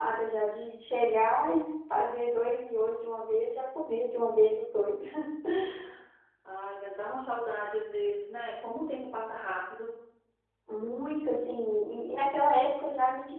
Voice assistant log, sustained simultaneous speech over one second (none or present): none